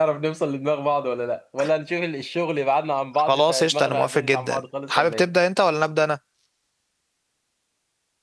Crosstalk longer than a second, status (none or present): present